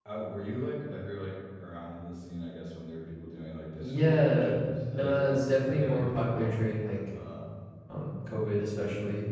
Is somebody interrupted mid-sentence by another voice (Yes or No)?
Yes